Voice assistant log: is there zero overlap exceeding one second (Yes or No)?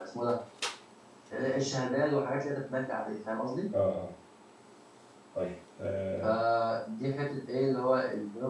Yes